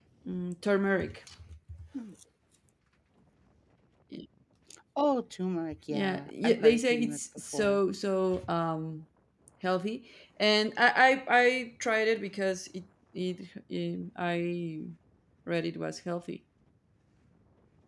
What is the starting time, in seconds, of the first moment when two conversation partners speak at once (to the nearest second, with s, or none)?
6 s